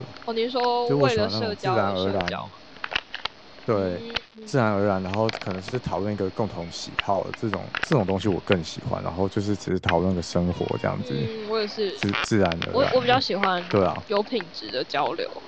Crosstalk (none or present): present